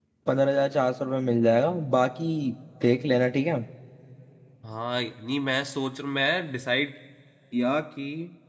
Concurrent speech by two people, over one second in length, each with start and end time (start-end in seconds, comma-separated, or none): none